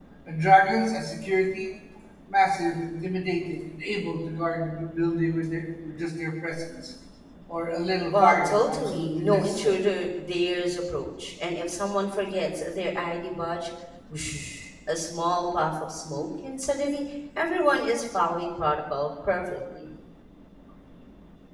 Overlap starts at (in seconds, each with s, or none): 8.1 s